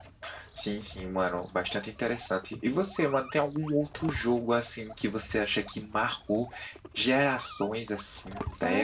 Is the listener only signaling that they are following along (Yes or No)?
No